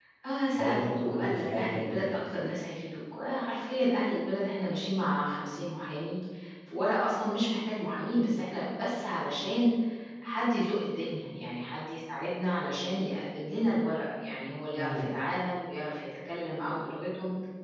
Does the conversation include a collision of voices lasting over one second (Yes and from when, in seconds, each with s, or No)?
Yes, from 0.5 s